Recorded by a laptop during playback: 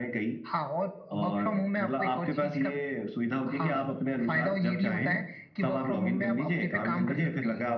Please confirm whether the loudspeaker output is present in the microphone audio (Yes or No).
Yes